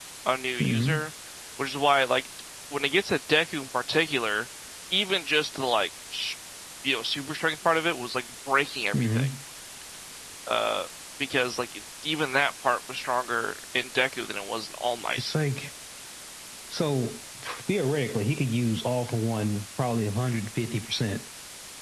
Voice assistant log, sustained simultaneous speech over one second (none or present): none